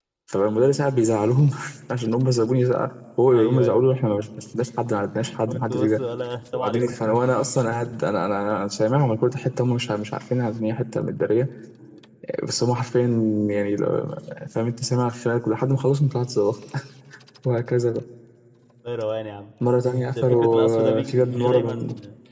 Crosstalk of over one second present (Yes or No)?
Yes